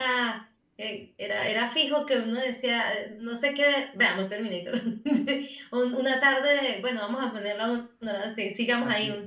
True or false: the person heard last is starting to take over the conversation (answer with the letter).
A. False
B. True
B